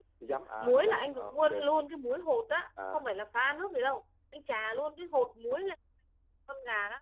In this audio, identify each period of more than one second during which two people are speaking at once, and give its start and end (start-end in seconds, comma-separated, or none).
0.6-1.8